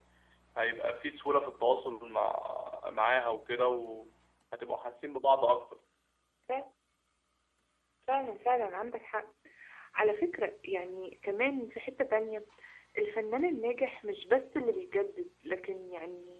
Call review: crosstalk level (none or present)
none